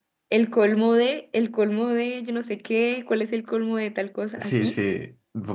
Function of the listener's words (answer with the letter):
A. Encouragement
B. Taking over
B